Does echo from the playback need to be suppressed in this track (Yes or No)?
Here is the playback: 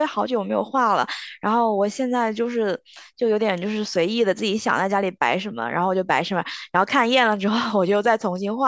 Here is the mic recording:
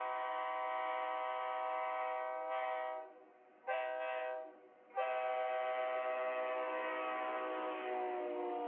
No